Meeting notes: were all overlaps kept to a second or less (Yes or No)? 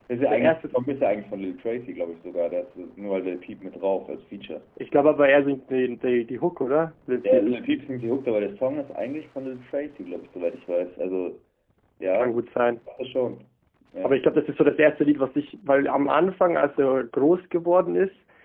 Yes